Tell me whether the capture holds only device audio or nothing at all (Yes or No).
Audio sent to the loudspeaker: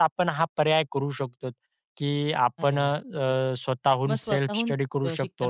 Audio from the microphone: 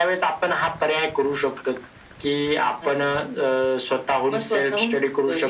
Yes